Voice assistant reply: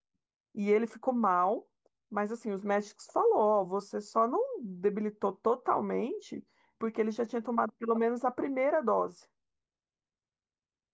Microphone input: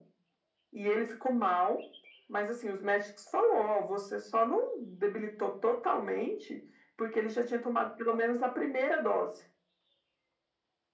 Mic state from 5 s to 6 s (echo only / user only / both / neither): echo only